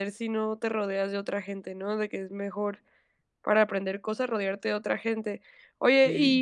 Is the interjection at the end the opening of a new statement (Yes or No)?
No